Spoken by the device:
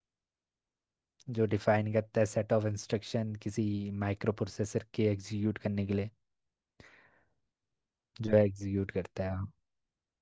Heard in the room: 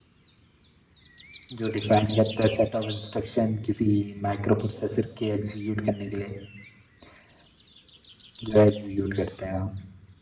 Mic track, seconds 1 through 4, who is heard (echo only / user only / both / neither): echo only